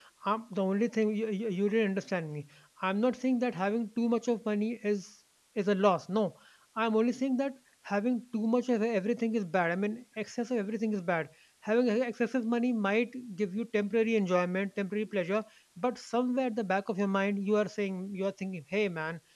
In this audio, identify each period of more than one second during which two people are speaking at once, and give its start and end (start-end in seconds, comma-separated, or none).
none